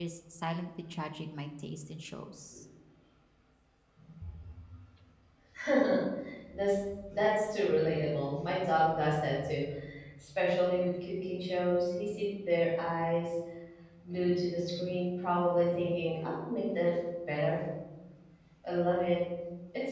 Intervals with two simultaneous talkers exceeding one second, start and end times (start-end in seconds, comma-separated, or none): none